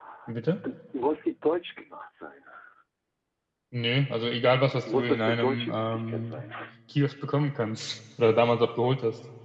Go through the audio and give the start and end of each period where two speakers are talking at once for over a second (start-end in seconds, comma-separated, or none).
4.9-6.4